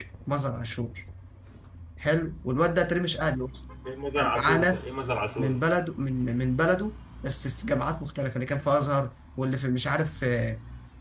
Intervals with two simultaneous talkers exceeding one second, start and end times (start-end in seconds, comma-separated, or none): 4.2-5.6